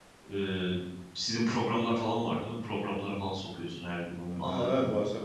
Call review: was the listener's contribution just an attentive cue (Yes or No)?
No